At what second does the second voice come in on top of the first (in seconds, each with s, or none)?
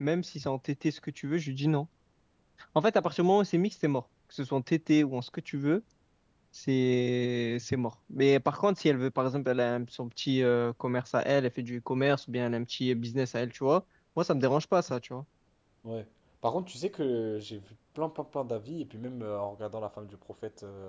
none